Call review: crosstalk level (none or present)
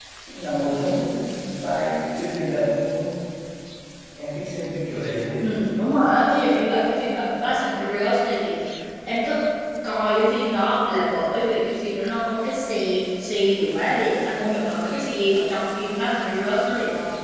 none